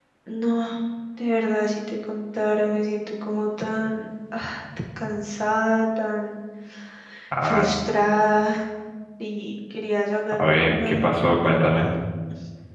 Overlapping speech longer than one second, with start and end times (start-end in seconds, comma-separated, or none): 10.4-11.9